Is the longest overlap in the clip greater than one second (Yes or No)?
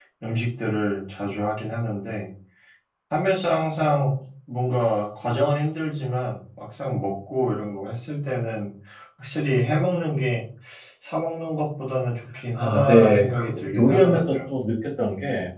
Yes